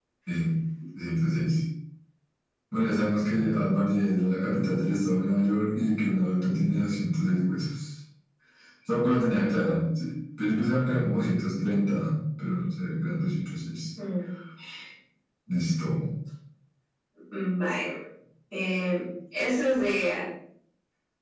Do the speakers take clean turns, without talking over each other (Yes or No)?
Yes